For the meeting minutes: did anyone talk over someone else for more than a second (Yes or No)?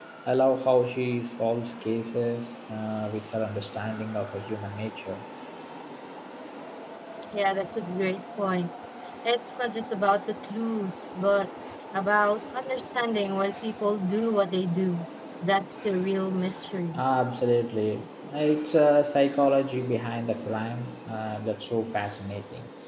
No